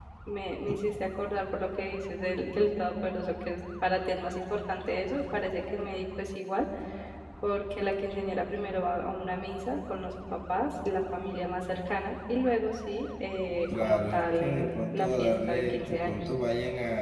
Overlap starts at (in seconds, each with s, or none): 13.7 s